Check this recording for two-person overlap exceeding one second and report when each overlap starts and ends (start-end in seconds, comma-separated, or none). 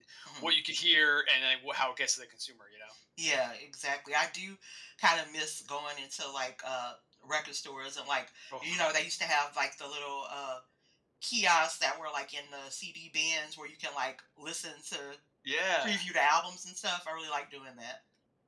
none